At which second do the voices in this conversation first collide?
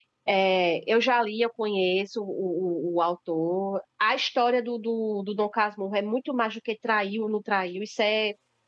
none

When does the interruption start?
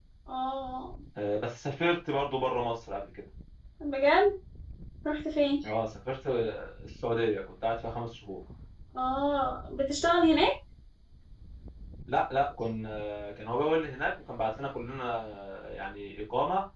none

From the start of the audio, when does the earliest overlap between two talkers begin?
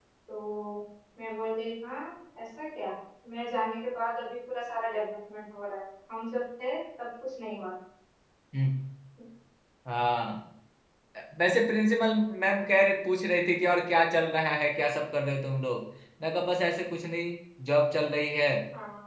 none

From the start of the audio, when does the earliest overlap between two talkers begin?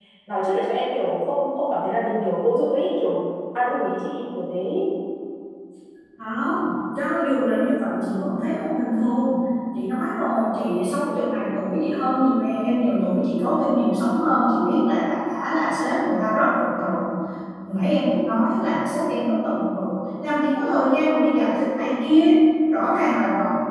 none

